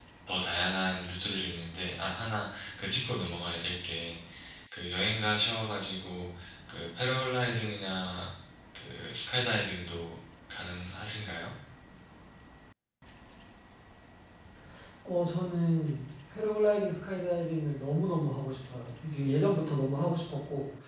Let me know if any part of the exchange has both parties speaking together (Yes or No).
No